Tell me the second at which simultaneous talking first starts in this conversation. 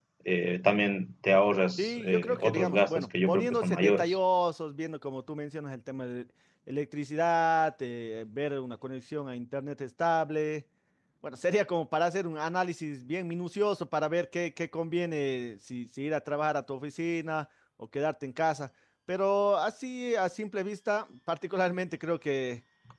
1.8 s

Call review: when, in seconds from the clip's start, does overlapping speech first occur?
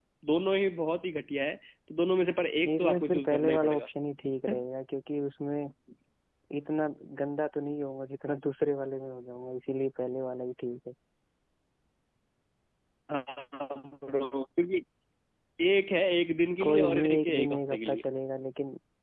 2.6 s

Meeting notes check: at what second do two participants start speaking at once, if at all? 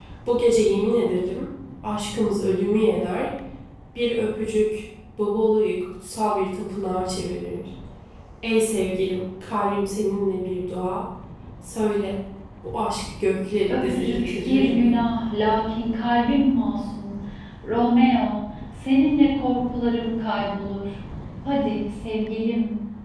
13.7 s

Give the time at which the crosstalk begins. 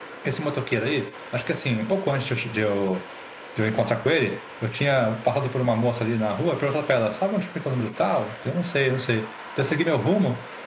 none

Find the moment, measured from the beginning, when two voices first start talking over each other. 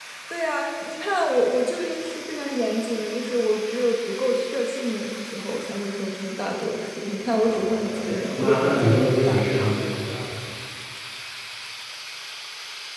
7.4 s

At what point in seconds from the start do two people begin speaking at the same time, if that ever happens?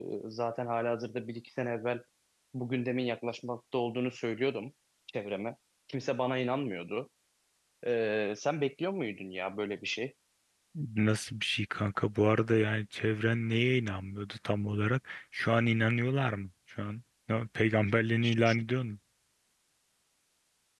none

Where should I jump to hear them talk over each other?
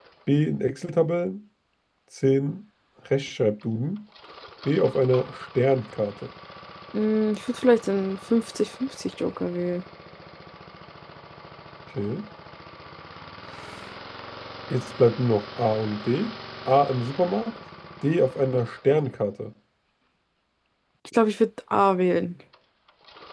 none

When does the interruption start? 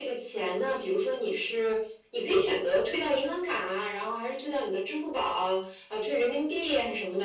none

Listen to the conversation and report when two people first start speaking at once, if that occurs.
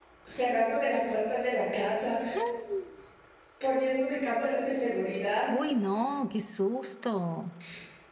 none

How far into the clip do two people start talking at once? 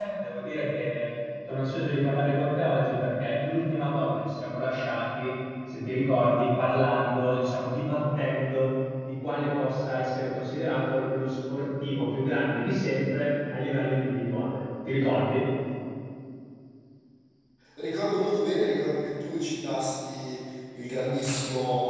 none

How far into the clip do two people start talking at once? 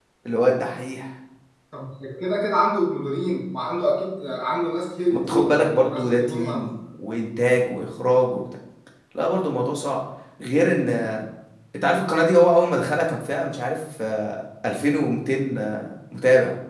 5.1 s

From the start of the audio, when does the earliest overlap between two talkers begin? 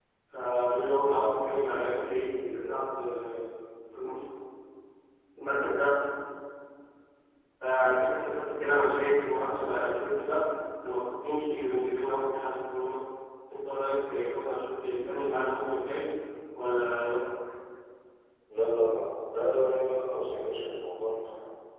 none

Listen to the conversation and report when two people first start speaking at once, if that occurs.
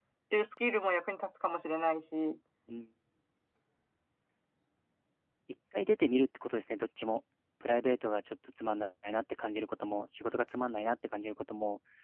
none

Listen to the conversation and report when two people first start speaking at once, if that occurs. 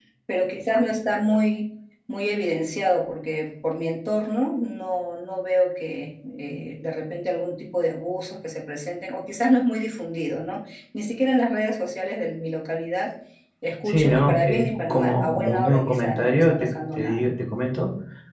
13.8 s

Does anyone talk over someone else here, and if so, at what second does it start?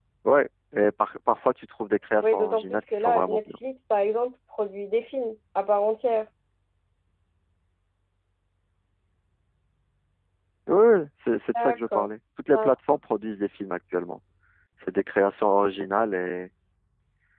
2.2 s

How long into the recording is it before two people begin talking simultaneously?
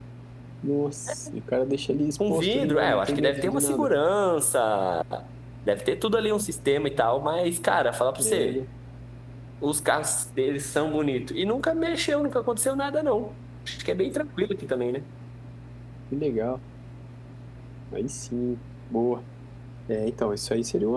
2.3 s

